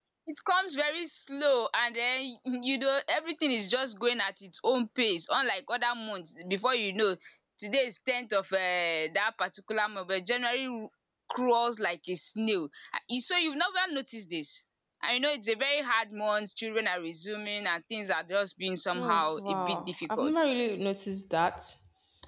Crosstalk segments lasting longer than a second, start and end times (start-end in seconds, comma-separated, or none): 18.9-20.4